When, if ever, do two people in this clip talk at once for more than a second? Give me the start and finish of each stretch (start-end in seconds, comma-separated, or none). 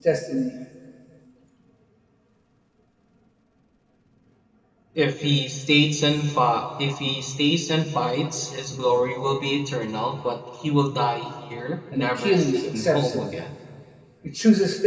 11.9-13.2